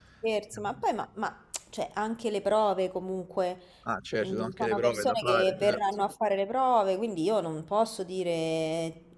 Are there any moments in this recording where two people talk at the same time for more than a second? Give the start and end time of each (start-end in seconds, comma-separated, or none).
4.2-5.8